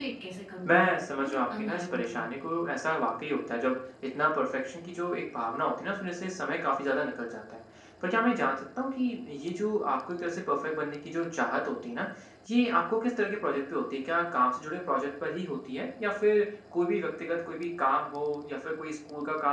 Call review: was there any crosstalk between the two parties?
Yes, from 0.6 s

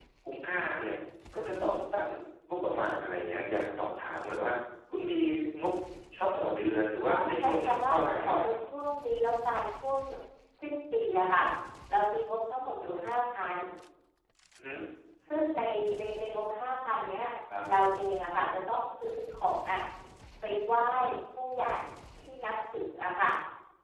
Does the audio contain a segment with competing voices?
Yes, from 7.1 s

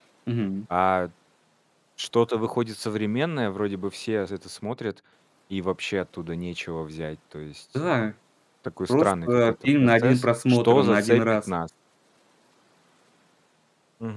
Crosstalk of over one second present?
Yes, from 8.9 s

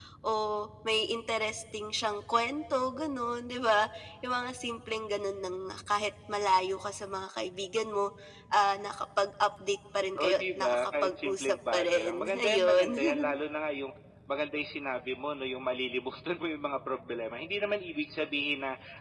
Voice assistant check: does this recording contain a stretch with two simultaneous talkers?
Yes, from 10.2 s

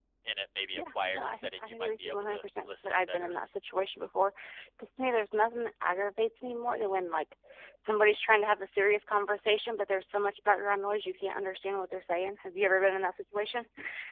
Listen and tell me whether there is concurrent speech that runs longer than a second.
Yes, from 0.7 s

